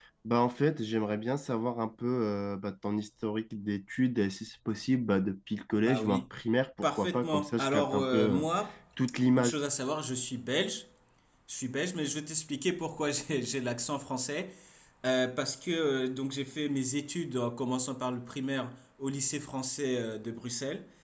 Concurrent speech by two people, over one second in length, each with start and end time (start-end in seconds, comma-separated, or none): 6.8-8.4